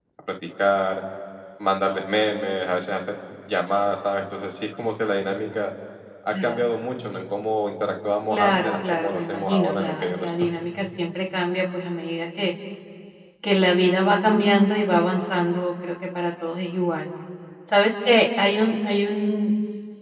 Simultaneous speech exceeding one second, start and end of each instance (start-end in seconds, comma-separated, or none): 8.3-10.5